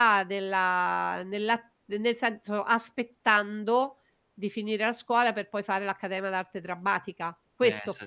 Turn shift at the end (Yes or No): Yes